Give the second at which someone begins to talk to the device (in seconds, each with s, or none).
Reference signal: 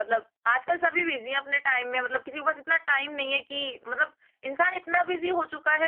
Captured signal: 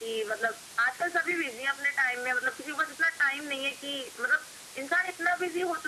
none